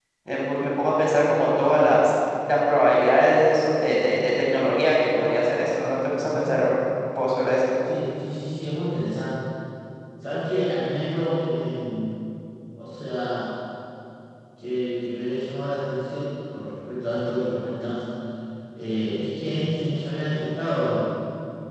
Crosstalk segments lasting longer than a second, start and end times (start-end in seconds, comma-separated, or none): none